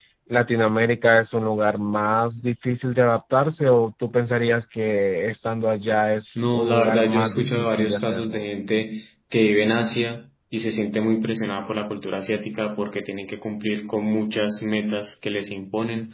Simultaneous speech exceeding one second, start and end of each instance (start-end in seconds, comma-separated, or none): 6.4-8.4